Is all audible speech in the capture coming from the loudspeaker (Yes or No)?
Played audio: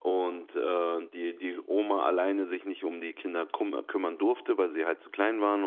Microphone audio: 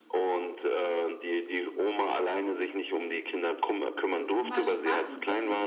No